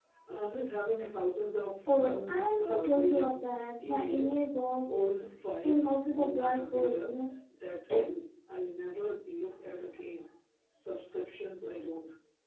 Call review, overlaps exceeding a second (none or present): present